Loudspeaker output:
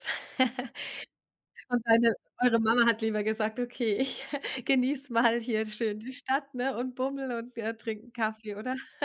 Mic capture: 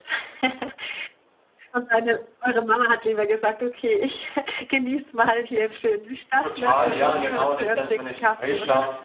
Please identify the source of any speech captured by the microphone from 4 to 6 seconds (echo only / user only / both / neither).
echo only